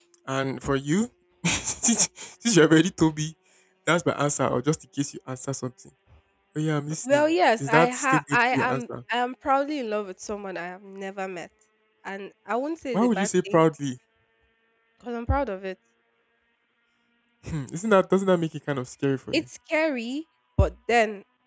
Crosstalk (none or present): present